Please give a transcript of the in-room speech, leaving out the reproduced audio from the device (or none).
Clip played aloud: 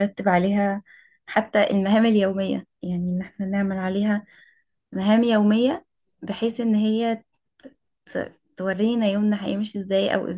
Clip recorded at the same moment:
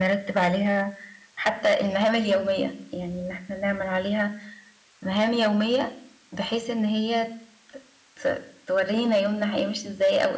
none